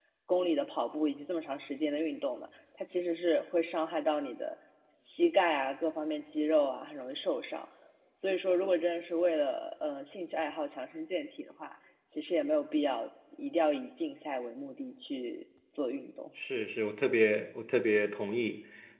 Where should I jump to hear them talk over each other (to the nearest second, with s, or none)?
none